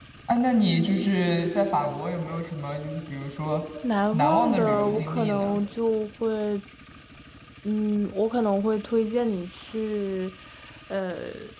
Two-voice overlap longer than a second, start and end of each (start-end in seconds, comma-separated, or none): 4.1-5.6